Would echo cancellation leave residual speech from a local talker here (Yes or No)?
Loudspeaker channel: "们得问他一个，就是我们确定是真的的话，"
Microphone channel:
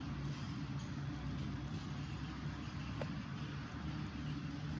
No